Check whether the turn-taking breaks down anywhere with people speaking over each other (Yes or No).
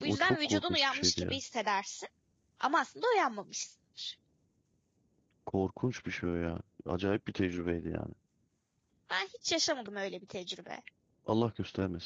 Yes